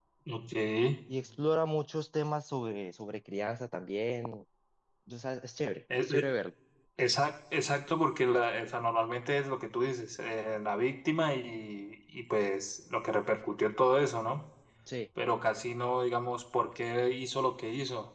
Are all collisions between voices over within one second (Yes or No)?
Yes